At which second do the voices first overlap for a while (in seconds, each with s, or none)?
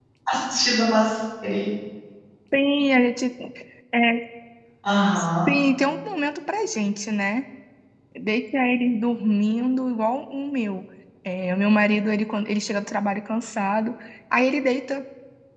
none